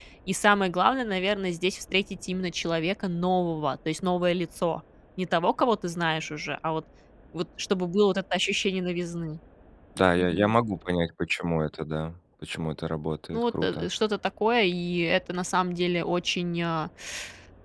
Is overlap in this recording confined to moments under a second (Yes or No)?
Yes